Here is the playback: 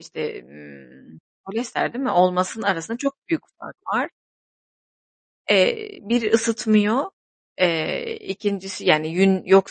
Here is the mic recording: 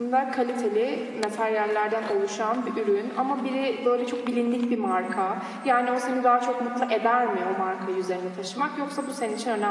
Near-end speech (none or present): present